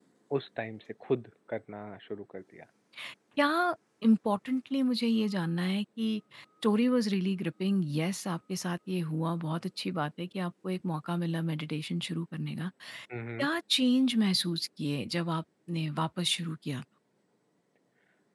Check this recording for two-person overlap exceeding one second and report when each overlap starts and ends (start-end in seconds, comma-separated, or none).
none